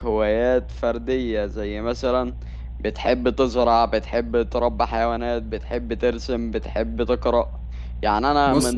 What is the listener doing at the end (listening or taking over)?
listening